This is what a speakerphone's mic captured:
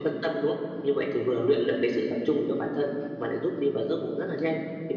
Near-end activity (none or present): none